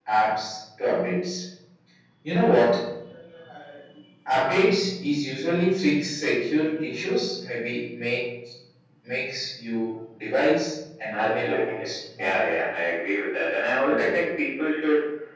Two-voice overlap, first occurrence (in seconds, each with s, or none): 11.1 s